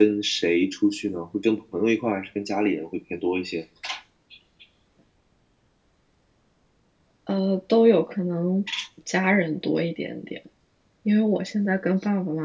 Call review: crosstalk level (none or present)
none